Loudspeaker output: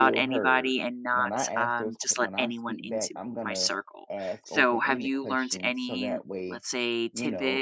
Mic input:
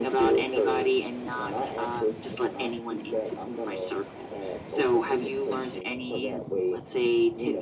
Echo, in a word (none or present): present